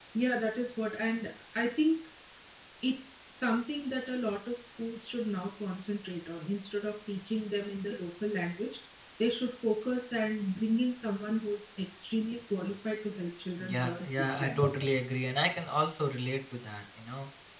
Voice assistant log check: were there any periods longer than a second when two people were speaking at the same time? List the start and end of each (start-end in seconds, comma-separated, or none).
13.6-14.9